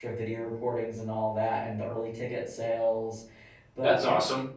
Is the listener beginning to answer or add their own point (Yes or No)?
Yes